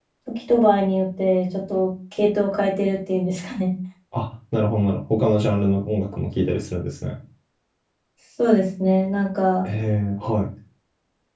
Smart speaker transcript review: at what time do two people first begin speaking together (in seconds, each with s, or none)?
none